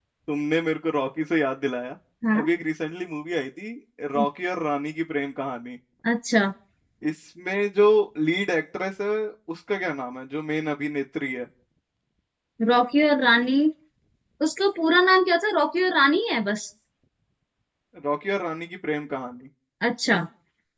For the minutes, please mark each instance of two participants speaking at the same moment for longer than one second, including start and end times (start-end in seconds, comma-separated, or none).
none